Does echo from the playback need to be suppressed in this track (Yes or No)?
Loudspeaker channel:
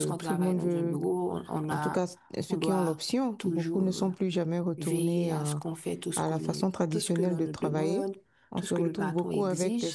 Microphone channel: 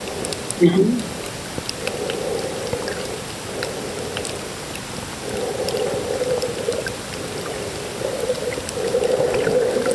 No